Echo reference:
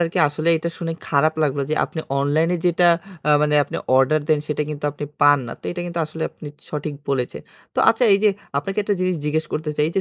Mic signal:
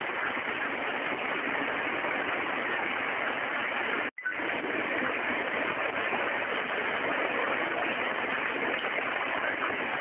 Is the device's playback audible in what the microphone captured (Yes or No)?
No